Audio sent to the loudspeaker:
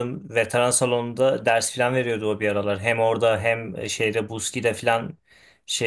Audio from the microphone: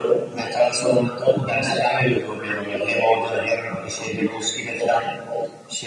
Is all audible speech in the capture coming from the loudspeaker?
Yes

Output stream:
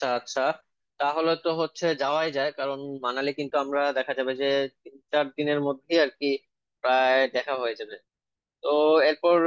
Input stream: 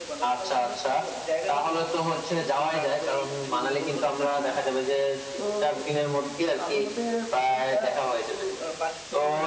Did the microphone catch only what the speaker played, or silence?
No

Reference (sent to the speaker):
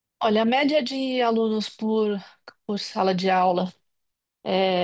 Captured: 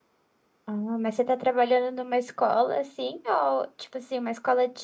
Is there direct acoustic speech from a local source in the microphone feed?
Yes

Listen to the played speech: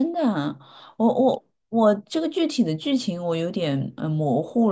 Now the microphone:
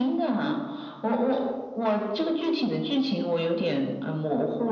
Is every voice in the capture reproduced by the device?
Yes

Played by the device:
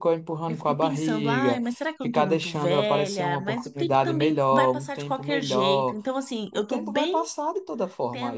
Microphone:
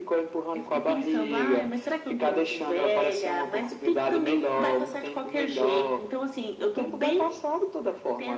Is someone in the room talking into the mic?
No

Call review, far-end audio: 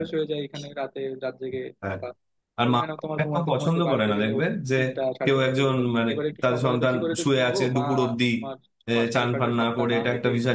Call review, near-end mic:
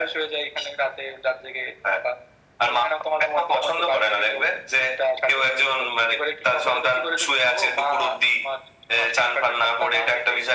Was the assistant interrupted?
No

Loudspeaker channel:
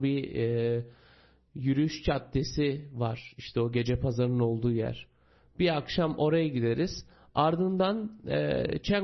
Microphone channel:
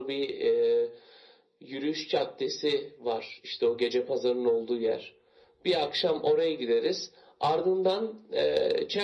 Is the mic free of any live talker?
Yes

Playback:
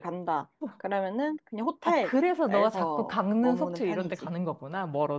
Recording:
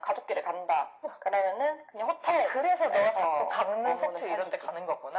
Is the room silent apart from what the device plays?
Yes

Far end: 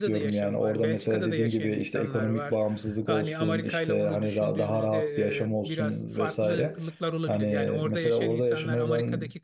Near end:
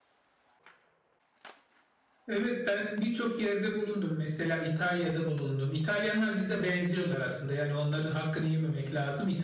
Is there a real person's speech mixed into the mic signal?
Yes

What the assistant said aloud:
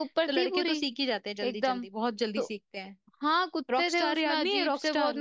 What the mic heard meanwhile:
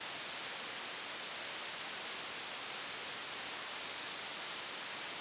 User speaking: No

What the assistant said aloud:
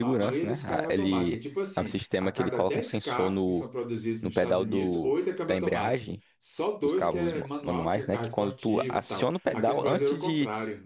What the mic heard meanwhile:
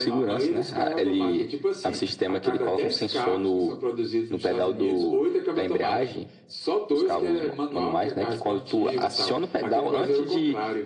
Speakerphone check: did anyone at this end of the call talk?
No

